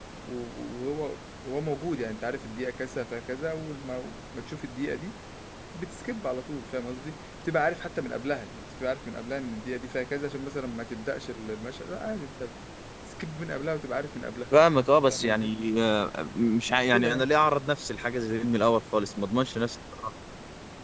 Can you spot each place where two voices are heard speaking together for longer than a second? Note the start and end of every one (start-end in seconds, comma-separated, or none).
none